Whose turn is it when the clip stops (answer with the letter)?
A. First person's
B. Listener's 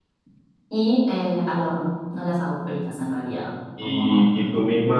B